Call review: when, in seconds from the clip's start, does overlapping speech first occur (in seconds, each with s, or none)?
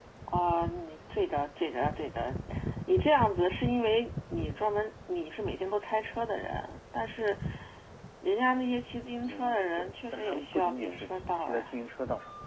9.2 s